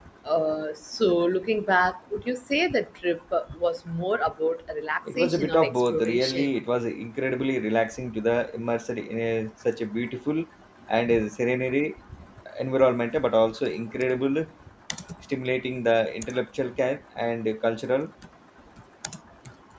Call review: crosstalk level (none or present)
present